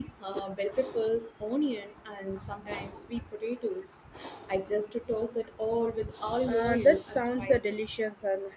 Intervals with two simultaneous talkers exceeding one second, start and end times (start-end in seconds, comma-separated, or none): 6.5-7.8